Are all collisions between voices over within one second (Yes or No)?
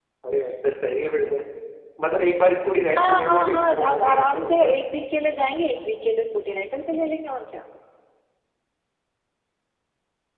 No